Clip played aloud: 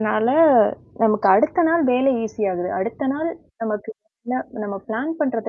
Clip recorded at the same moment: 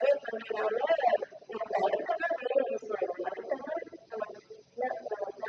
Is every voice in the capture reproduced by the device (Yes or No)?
Yes